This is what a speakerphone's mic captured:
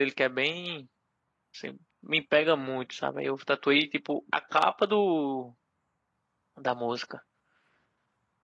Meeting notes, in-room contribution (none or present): present